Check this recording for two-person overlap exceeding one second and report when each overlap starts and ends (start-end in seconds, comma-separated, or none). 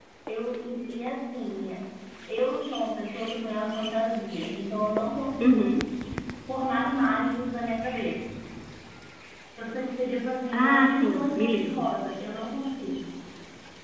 10.5-11.9